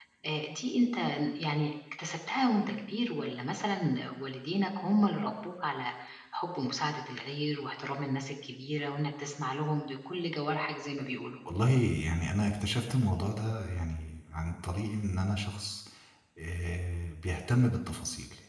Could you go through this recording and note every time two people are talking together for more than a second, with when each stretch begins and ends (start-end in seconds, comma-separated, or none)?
none